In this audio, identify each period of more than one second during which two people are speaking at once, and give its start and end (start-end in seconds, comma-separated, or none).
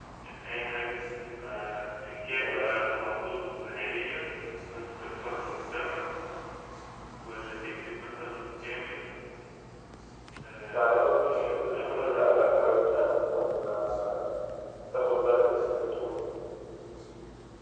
10.7-12.5